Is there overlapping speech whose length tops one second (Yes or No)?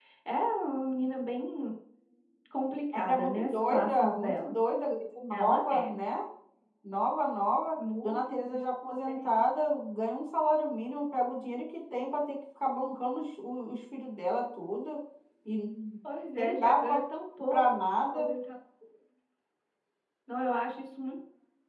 Yes